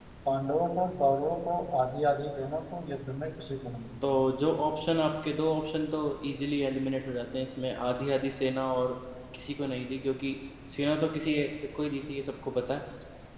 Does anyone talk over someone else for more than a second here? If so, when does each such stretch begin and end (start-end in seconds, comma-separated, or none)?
none